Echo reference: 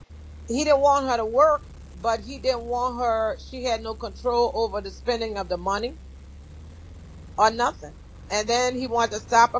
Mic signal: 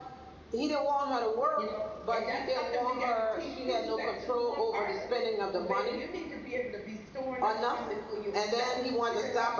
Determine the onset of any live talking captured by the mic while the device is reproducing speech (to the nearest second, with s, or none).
2 s